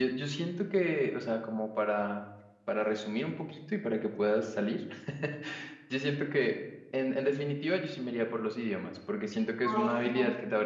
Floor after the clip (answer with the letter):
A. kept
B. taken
A